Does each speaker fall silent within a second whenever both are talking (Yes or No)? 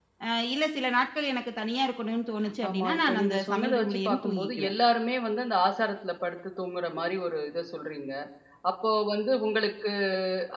No